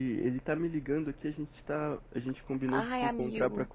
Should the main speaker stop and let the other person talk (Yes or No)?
No